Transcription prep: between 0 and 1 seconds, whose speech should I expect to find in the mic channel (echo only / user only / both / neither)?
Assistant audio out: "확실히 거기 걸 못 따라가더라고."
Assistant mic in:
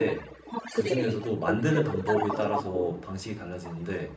both